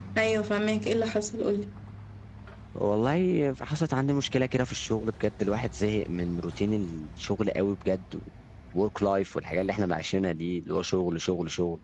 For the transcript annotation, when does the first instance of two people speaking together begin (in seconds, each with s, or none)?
none